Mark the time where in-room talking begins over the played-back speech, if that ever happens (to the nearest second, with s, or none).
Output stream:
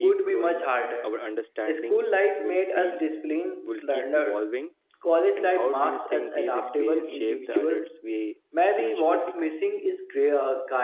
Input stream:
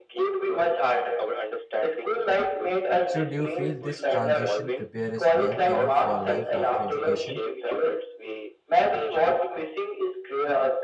3 s